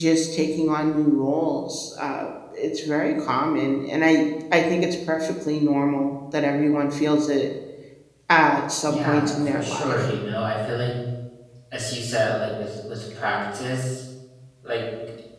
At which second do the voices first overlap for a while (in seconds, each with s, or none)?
8.8 s